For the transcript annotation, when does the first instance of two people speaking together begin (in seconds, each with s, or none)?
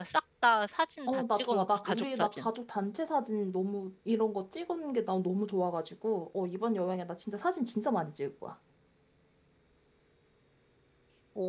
1.1 s